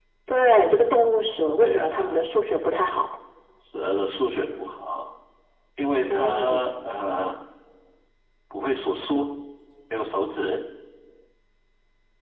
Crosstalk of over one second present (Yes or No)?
Yes